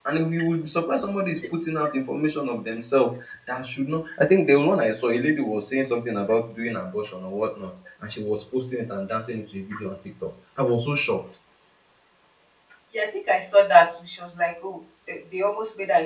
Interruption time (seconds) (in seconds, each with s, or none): none